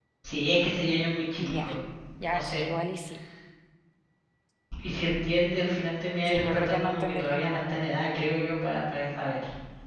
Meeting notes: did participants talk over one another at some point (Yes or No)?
Yes